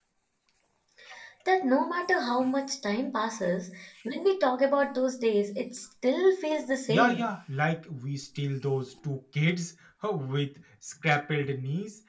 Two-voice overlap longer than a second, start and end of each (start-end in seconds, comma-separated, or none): none